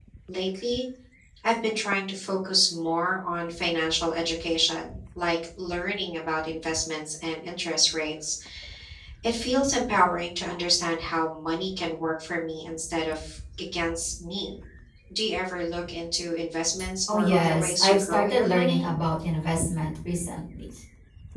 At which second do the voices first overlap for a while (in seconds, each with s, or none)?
17.1 s